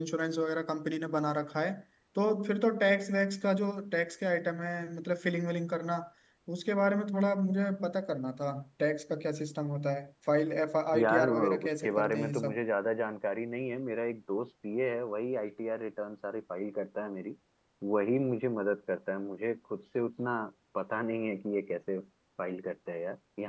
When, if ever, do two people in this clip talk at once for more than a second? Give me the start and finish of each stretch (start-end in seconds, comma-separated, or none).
10.9-12.6